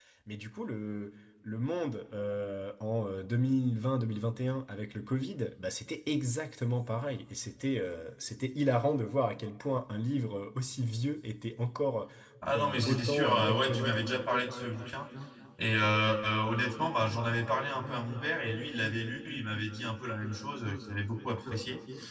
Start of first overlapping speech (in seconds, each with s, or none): 12.6 s